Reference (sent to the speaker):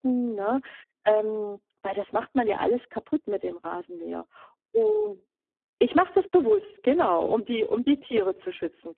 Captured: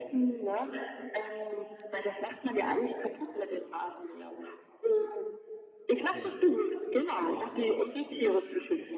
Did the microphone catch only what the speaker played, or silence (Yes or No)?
No